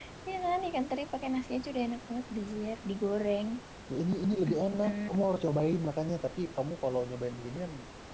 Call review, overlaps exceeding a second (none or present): none